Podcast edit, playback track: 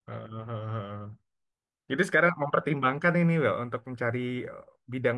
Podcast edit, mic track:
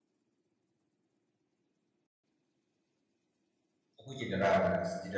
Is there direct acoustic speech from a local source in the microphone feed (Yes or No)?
Yes